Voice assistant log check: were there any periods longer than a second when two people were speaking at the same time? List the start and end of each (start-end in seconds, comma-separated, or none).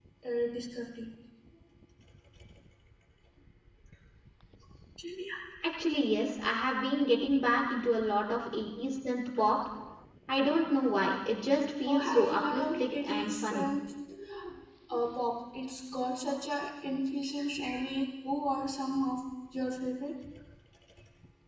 11.9-13.7